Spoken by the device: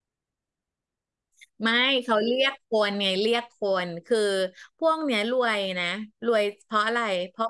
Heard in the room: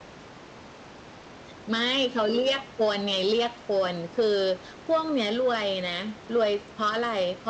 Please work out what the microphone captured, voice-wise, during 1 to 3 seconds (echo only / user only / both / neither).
echo only